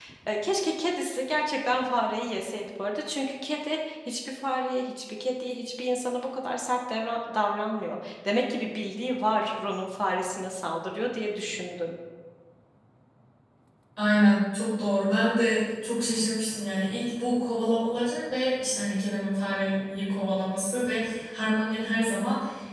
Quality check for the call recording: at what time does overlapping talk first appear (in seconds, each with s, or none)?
none